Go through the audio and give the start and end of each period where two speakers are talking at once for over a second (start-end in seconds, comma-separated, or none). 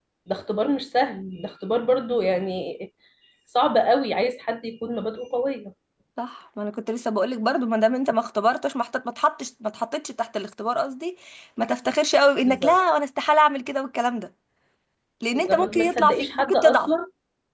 15.3-16.9